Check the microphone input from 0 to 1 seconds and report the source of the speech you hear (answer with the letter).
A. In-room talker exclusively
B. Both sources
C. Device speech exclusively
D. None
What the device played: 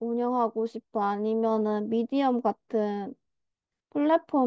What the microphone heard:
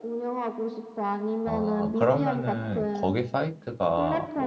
C